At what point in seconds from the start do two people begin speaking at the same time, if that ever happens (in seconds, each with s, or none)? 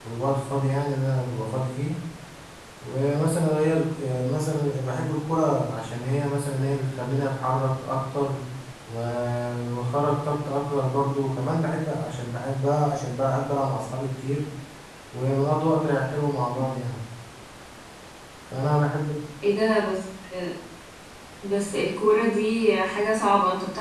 none